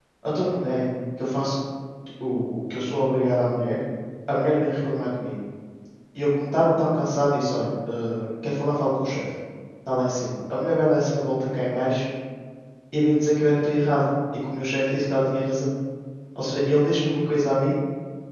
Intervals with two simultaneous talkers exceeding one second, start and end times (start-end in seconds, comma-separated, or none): none